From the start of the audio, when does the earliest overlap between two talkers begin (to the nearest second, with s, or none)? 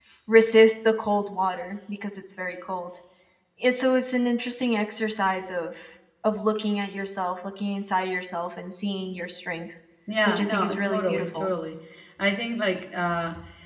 10 s